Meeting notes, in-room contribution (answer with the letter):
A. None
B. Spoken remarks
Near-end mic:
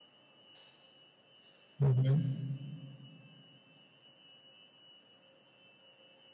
B